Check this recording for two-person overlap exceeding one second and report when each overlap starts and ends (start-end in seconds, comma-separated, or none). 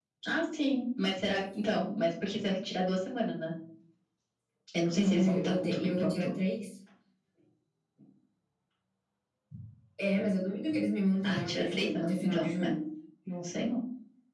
4.9-6.3, 11.2-12.7